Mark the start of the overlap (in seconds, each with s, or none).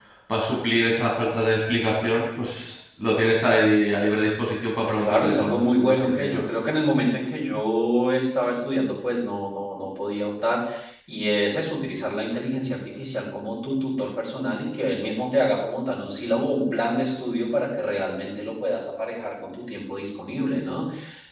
4.9 s